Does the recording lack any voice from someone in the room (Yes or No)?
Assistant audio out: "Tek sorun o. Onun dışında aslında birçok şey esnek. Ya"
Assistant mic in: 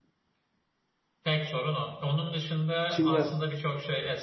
No